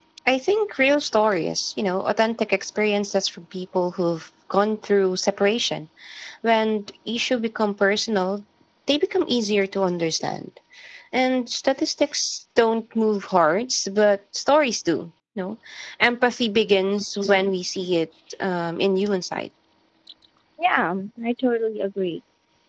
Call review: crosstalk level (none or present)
none